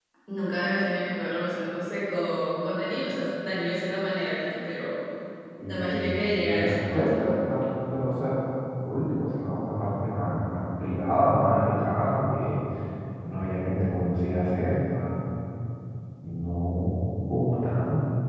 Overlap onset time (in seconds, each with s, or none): 5.7 s